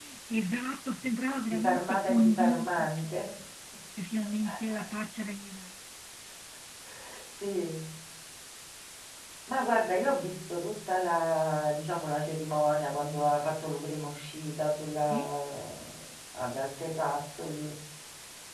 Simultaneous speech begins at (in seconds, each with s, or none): 1.5 s